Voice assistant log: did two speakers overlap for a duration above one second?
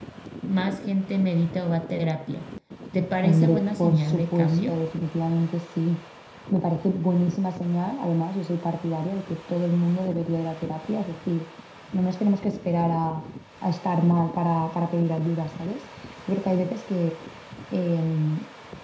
Yes, from 3.2 s

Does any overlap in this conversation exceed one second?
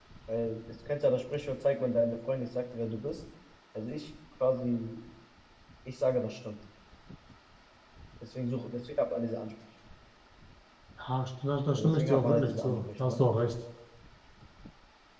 Yes, from 11.7 s

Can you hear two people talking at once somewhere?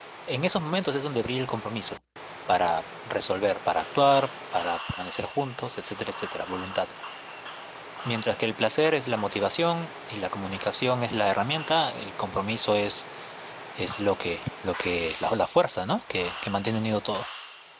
No

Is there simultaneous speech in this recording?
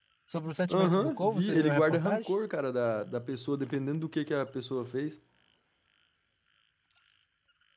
Yes, from 0.7 s

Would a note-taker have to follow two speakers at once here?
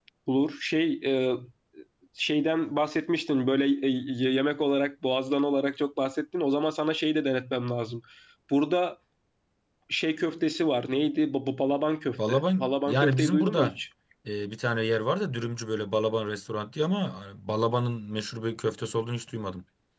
Yes, from 12.2 s

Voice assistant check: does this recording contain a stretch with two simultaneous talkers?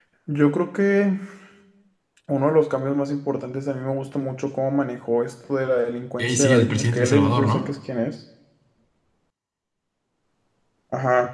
Yes, from 6.2 s

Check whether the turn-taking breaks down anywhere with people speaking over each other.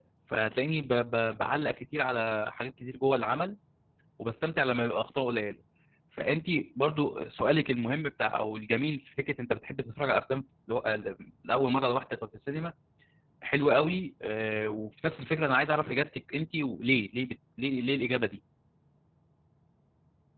No

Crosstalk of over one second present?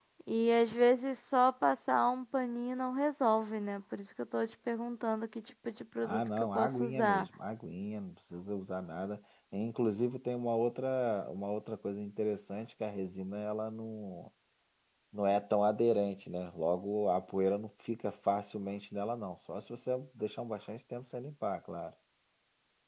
Yes, from 6.0 s

